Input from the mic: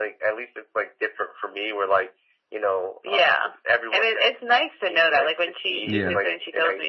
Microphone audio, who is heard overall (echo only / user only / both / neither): both